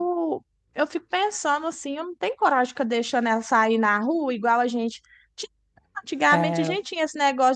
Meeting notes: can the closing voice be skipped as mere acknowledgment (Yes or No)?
Yes